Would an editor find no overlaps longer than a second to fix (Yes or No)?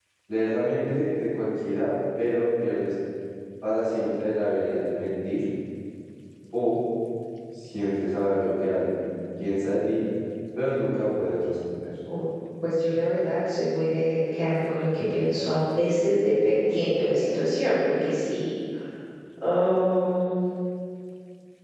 Yes